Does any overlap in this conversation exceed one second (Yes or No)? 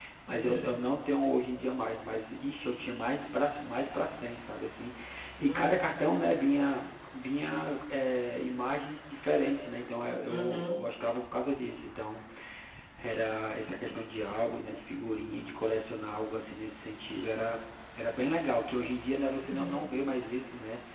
No